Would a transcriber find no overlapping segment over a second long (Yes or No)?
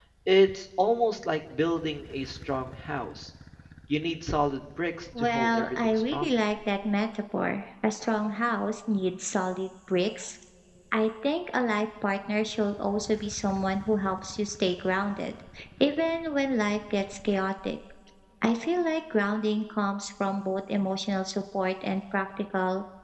No